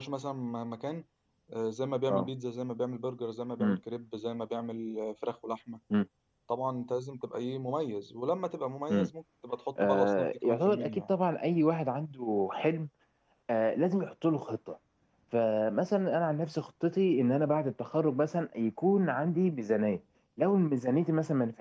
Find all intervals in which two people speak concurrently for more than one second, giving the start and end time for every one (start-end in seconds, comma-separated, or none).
9.8-11.1